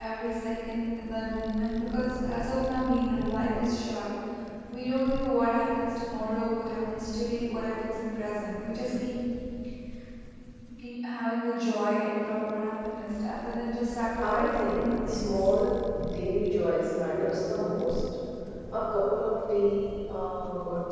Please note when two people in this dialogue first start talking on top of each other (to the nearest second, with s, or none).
14 s